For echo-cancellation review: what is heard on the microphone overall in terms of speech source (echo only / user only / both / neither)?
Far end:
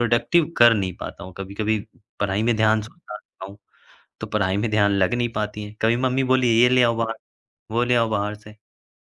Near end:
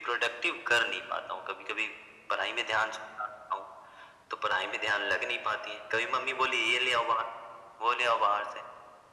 echo only